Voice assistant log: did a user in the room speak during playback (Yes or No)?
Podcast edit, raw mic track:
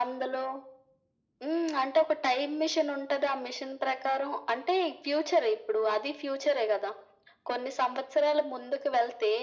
No